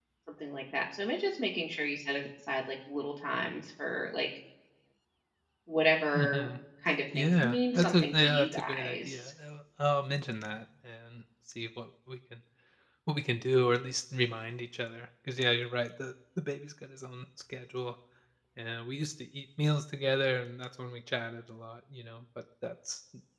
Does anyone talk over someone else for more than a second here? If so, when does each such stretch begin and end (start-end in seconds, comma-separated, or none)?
7.2-9.2